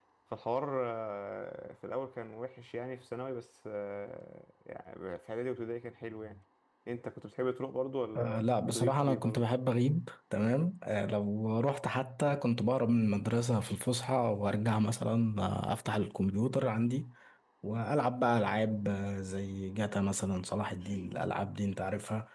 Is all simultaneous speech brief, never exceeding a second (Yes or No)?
No